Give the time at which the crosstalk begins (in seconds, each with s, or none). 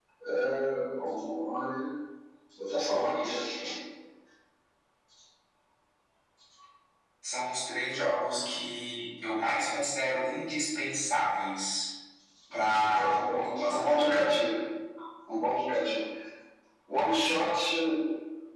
12.5 s